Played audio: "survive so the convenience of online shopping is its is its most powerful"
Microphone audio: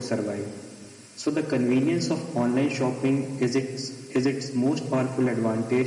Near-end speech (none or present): none